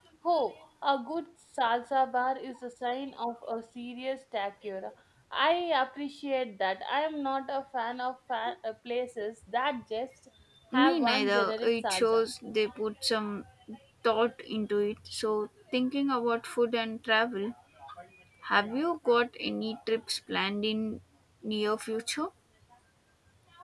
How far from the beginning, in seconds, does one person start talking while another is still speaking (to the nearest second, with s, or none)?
11 s